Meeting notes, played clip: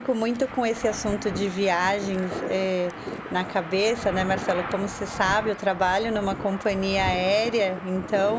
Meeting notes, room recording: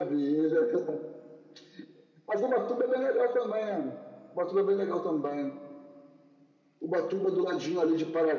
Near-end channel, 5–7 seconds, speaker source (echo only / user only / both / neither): user only